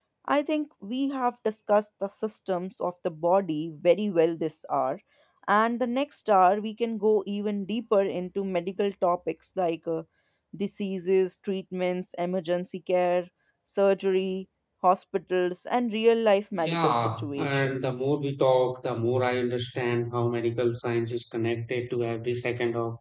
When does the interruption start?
16.5 s

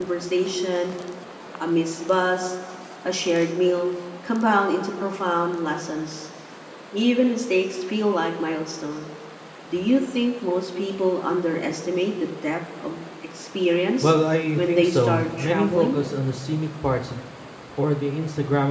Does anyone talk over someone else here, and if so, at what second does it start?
14.6 s

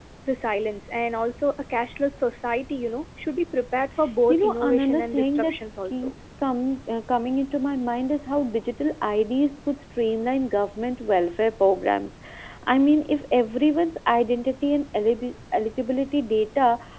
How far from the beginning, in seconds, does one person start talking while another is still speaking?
4.3 s

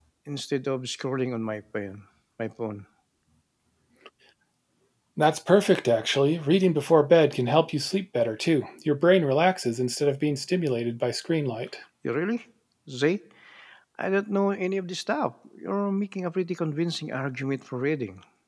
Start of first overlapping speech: none

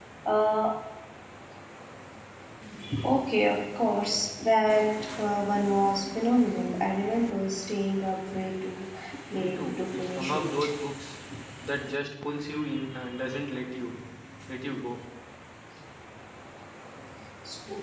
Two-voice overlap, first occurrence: 9.3 s

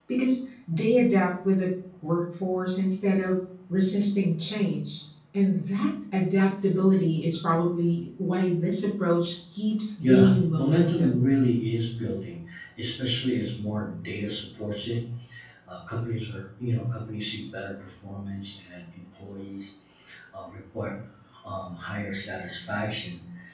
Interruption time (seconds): 10.0 s

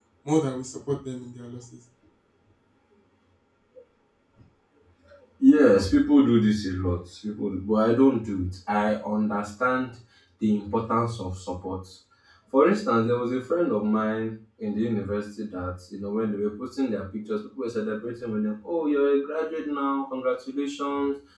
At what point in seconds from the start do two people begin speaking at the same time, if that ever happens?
none

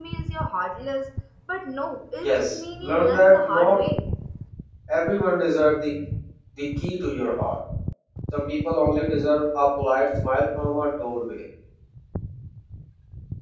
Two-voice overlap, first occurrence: 2.2 s

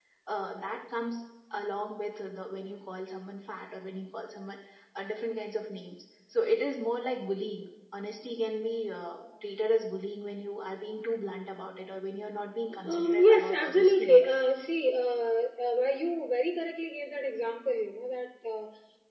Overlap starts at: 12.7 s

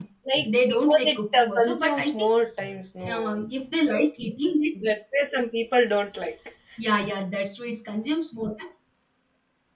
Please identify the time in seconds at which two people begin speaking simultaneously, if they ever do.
0.6 s

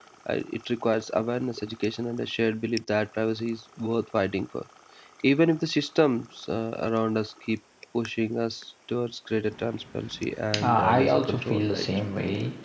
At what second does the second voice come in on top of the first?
10.5 s

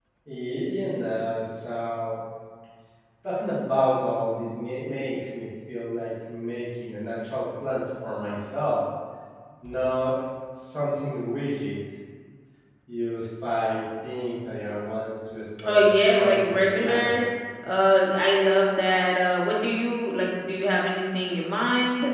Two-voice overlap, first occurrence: 15.6 s

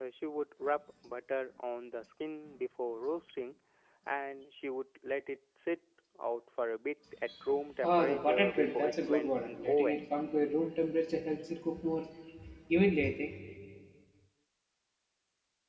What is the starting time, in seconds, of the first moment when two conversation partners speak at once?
7.8 s

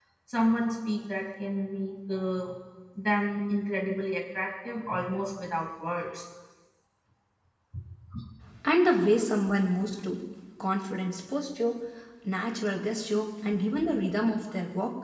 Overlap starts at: none

